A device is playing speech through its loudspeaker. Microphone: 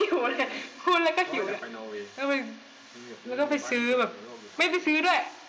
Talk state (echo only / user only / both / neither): both